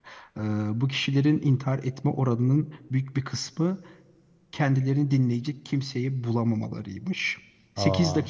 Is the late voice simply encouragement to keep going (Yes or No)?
Yes